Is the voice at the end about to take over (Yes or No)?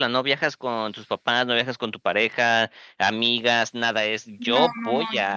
Yes